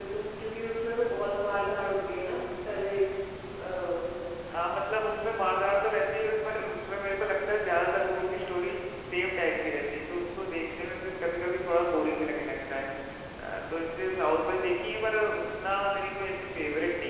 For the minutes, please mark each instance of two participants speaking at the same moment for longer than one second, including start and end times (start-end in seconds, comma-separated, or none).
none